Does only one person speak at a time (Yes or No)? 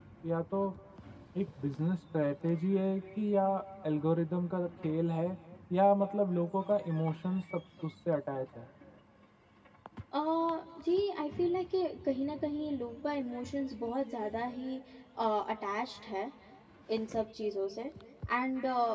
Yes